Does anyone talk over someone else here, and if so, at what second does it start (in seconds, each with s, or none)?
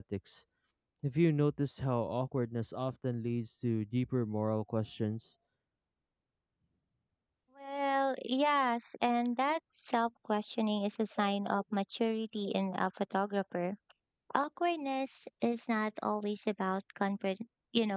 none